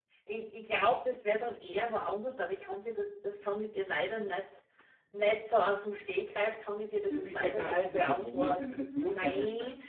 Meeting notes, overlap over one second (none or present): present